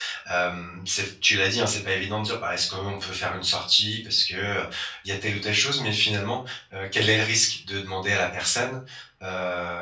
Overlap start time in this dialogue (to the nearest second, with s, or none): none